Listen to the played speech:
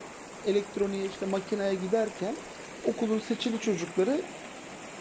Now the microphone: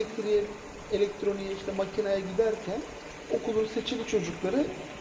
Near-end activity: none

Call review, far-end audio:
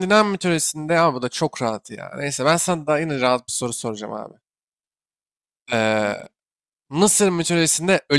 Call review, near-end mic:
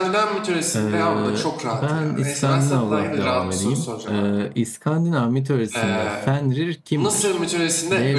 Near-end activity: present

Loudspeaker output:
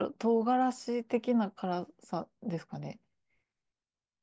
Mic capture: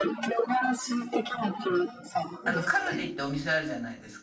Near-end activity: present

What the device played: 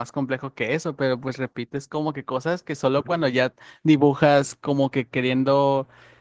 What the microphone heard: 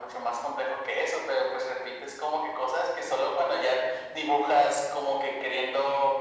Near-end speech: none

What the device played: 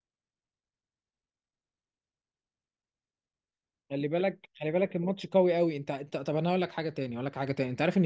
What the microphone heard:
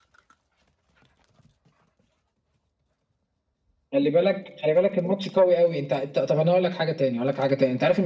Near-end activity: none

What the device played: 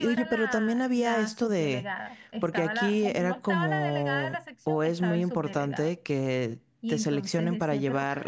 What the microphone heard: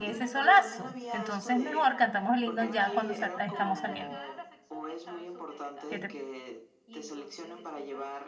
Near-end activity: present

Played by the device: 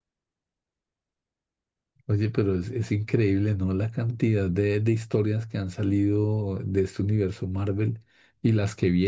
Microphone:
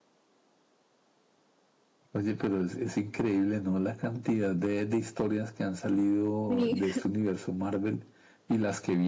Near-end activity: present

